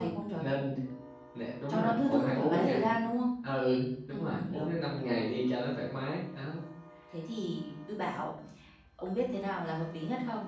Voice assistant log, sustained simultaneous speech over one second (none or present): present